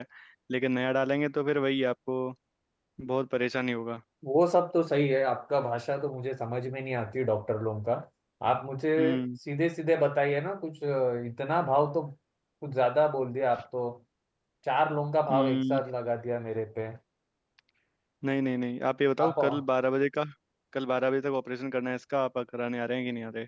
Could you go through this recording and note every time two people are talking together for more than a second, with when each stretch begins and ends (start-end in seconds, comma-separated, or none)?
none